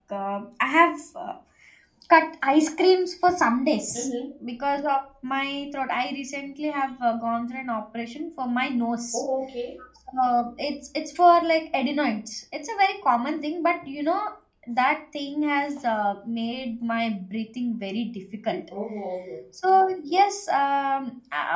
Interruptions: none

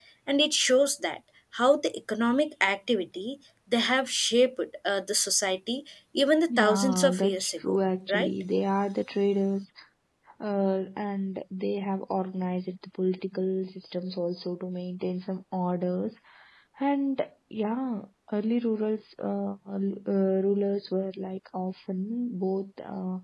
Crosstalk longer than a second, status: present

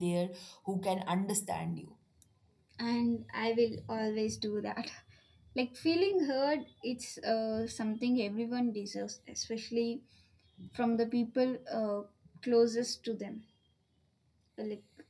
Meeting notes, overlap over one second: none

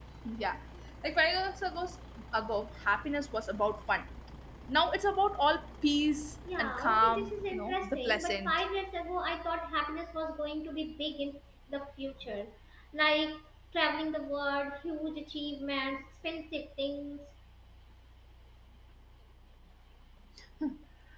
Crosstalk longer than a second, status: present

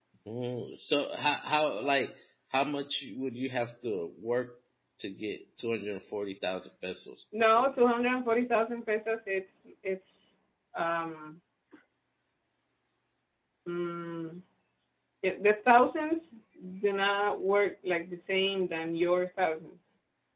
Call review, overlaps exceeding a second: none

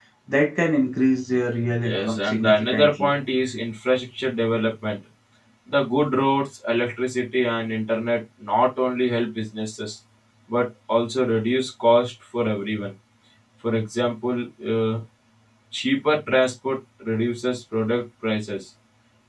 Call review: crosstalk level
present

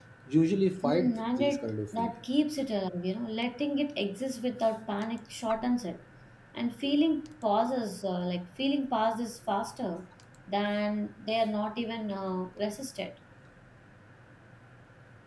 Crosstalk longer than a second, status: present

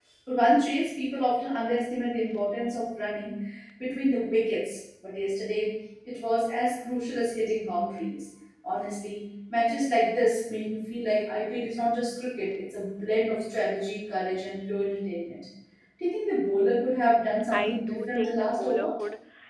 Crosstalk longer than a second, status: present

